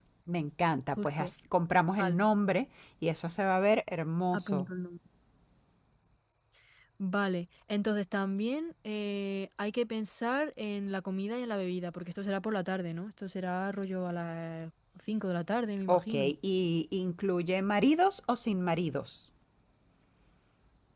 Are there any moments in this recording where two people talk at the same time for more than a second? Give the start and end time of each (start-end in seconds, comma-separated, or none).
none